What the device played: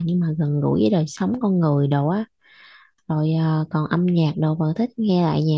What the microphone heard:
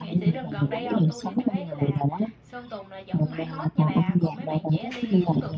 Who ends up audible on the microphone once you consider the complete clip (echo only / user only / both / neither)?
both